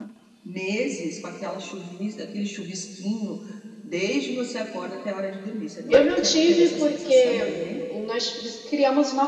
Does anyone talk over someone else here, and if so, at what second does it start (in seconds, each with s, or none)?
5.9 s